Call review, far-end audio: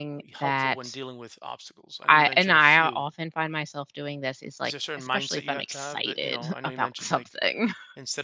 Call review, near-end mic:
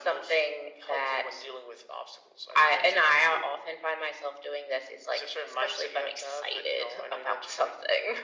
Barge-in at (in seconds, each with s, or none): none